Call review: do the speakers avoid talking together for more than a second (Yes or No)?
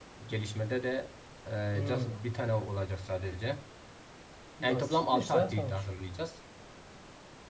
No